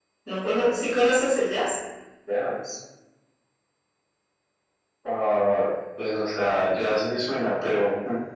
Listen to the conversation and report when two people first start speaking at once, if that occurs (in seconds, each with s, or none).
none